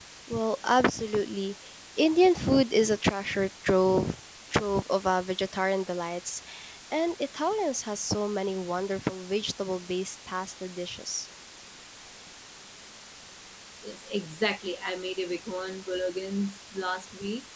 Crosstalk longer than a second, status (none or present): none